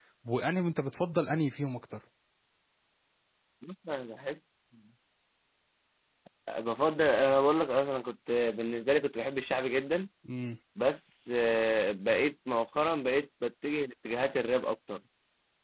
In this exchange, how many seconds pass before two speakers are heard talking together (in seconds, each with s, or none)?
none